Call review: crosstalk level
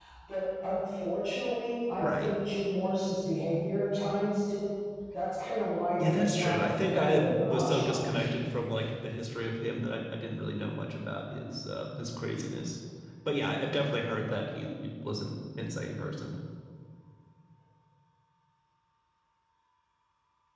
present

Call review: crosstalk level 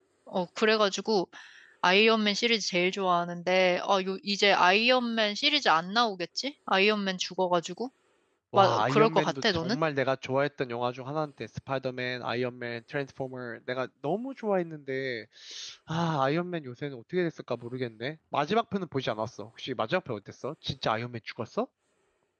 present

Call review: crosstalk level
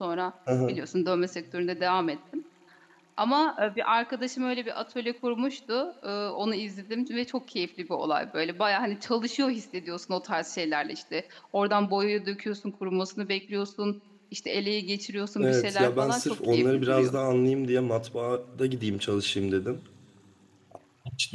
present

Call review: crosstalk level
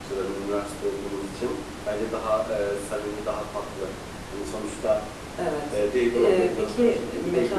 present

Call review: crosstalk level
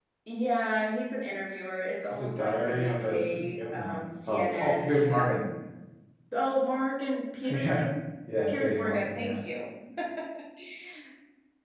present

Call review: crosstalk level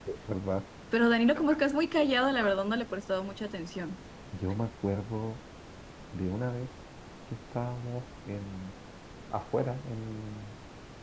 none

